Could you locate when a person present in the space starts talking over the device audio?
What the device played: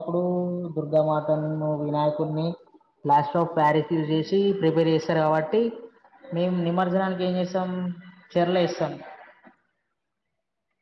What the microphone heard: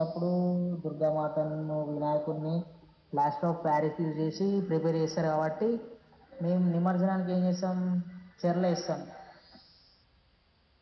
none

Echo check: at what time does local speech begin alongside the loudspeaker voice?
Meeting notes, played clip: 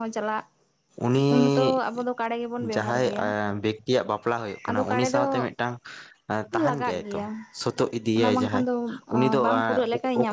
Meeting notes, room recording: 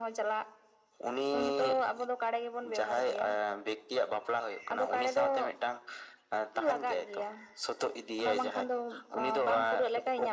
none

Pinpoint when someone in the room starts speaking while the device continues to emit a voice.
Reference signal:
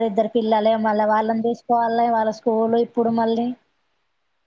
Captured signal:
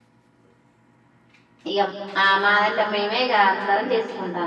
1.7 s

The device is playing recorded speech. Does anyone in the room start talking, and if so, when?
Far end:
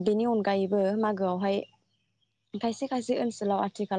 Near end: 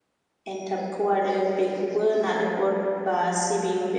0.5 s

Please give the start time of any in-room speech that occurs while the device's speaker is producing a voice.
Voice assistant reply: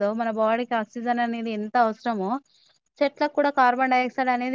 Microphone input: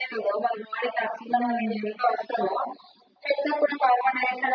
1.4 s

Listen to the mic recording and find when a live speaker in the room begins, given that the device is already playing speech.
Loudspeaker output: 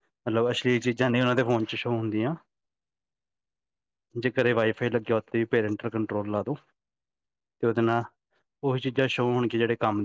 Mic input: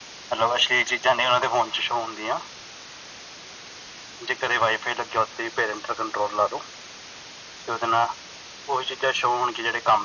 none

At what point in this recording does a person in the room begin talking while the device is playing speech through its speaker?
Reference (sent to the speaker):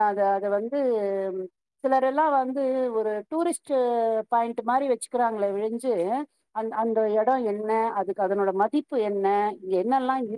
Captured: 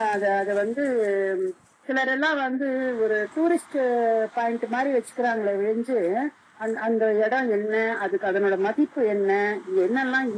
none

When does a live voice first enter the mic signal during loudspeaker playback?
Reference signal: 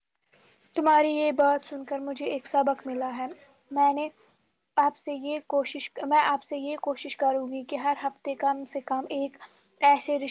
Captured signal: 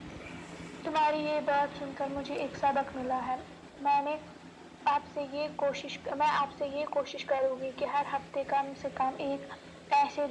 none

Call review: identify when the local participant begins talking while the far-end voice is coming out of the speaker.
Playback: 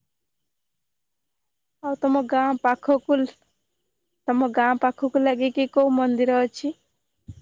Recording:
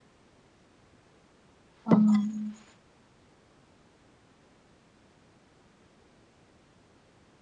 1.9 s

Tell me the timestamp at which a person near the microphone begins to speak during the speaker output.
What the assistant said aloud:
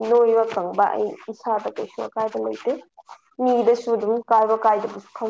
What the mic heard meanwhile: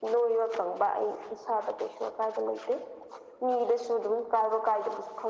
none

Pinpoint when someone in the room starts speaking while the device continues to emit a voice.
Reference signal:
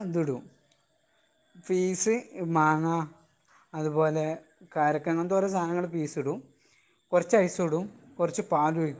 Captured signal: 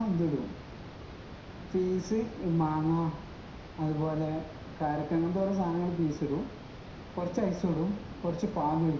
none

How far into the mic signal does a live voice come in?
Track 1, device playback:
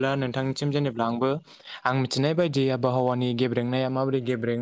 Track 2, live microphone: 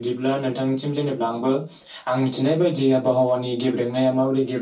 none

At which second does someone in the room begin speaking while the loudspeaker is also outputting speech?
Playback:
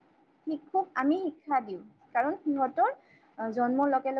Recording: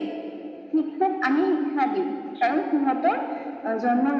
none

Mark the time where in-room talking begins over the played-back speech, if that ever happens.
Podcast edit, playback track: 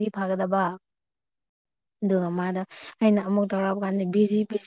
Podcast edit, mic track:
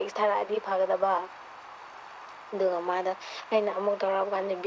none

